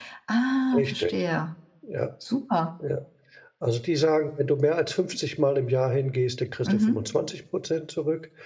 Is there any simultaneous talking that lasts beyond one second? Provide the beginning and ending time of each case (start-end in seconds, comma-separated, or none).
none